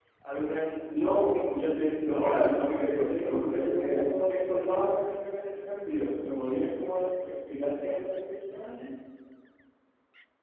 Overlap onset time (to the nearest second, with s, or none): 2 s